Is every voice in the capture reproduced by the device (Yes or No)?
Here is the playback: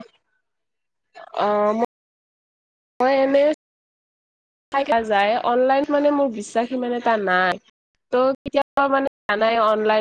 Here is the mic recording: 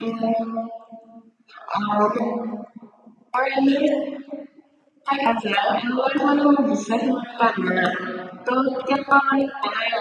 Yes